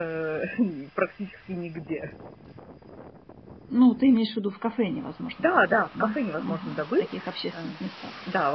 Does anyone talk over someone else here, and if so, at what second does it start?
5.4 s

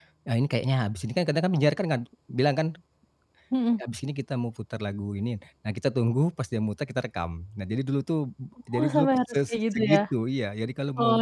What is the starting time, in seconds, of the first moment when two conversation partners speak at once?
8.8 s

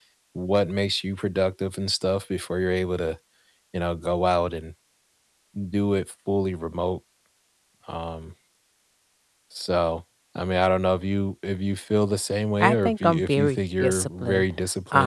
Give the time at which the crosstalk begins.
12.6 s

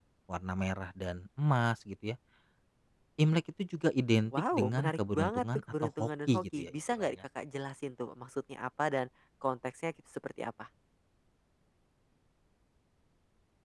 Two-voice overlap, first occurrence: 4.2 s

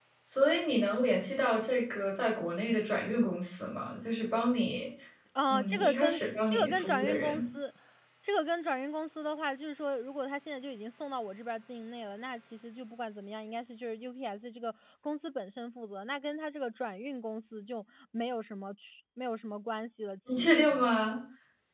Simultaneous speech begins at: 5.5 s

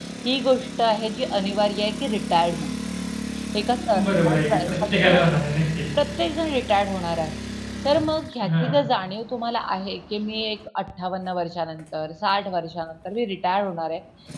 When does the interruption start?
4.0 s

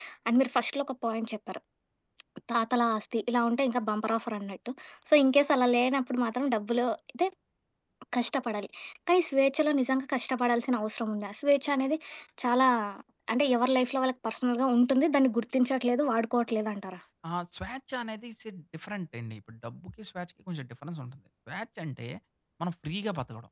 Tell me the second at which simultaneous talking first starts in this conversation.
none

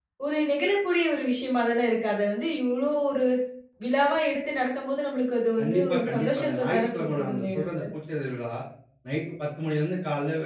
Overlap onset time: 5.6 s

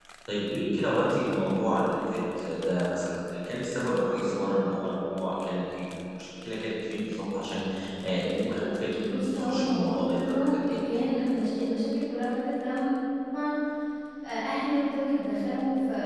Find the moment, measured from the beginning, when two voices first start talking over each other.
9.0 s

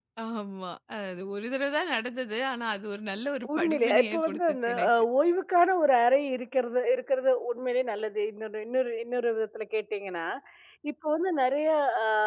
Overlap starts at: 3.4 s

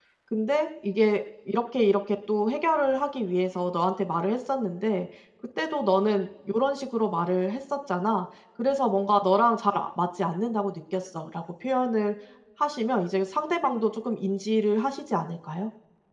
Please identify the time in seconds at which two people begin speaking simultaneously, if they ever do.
none

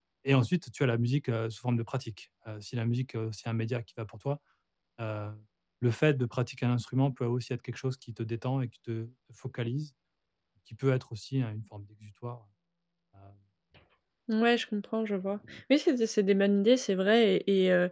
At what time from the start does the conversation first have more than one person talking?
none

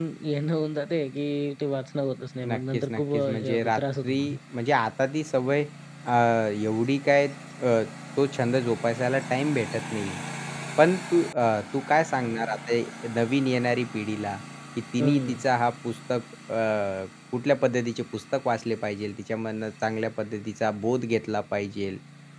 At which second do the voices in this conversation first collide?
2.5 s

